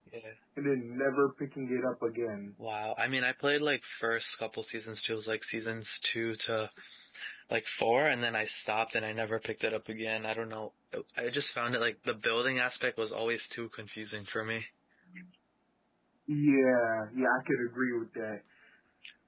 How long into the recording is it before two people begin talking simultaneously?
none

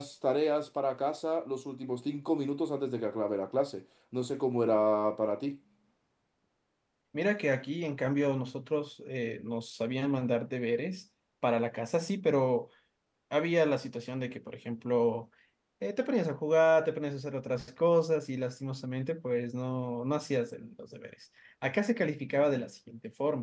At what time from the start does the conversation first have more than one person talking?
none

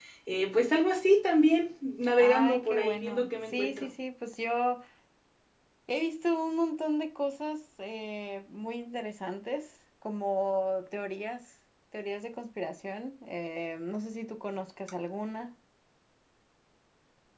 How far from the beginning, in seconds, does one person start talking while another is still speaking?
2 s

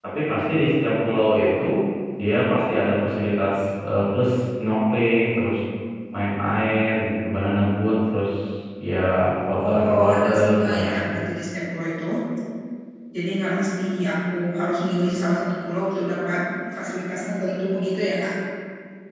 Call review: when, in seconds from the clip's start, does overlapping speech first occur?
10 s

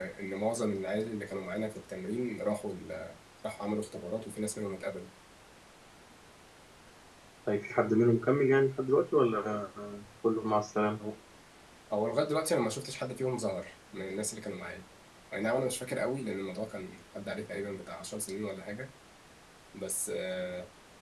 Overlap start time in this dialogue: none

